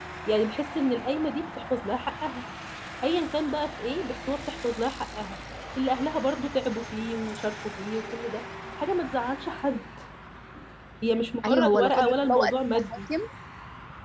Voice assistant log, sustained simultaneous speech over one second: present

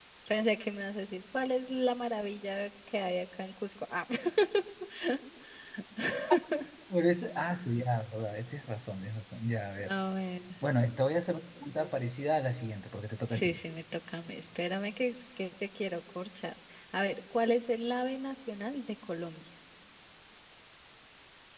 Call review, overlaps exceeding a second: none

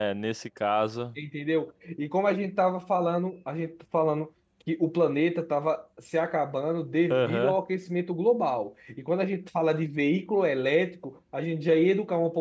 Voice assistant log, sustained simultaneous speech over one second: none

